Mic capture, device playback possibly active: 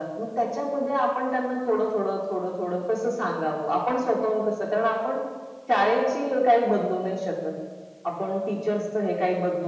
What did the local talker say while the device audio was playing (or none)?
none